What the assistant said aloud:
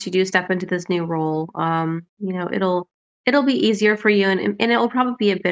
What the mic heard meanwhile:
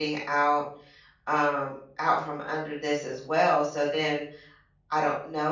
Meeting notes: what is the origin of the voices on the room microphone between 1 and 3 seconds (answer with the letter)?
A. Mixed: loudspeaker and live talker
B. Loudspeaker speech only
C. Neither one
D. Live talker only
D